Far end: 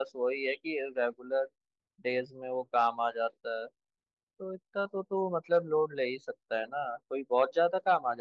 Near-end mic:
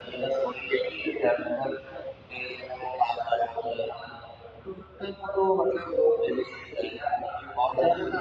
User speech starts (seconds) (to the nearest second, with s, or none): none